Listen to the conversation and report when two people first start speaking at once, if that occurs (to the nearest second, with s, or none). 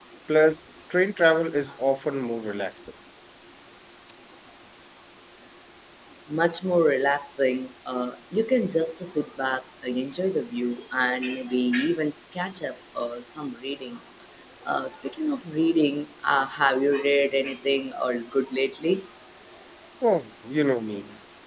none